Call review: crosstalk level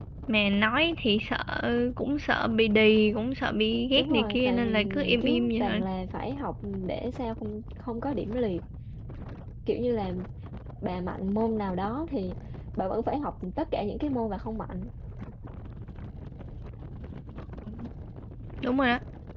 present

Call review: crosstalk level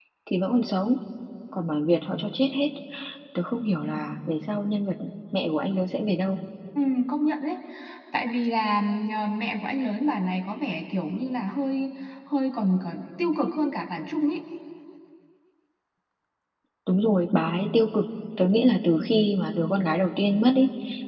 none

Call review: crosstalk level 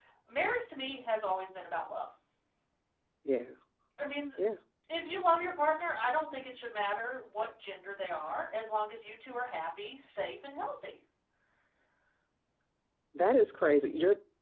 none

